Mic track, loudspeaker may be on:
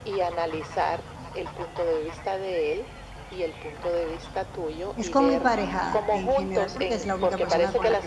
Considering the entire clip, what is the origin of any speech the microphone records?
both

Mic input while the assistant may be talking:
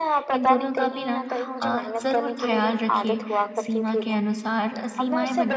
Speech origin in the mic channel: both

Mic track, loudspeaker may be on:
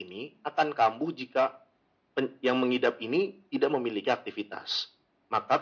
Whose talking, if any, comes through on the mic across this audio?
echo only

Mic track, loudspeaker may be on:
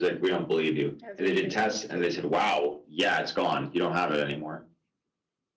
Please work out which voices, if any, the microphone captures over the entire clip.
both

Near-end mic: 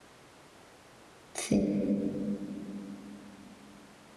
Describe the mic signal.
user only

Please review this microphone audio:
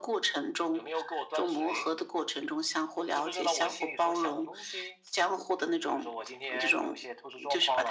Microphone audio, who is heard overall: echo only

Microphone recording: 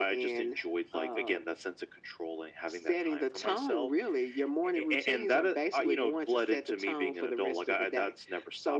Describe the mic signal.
echo only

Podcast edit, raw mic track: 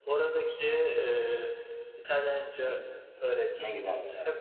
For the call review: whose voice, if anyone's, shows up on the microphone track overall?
both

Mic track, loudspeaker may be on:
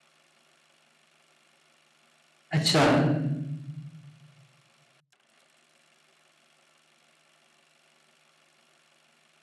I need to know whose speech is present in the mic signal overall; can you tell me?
user only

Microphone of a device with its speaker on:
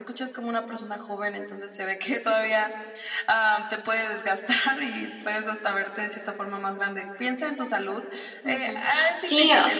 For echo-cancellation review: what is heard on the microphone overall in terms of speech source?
both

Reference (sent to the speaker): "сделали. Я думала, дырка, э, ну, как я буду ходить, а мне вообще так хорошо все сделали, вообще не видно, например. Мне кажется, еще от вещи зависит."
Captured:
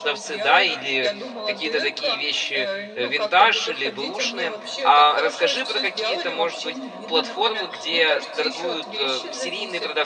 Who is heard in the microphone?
both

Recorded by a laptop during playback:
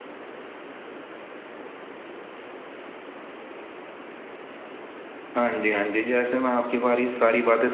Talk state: user only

